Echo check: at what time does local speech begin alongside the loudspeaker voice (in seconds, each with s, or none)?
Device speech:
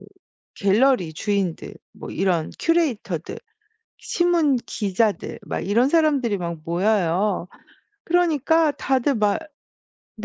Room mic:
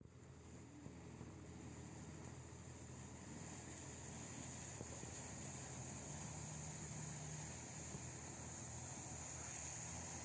none